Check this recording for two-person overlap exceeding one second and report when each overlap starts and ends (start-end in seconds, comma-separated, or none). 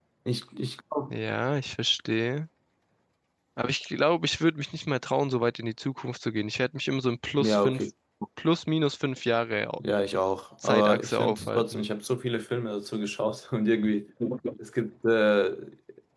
10.6-11.9